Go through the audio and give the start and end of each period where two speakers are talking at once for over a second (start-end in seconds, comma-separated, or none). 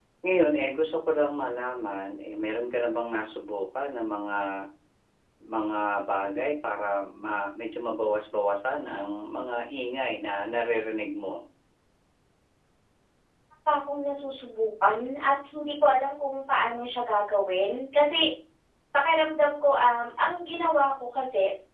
none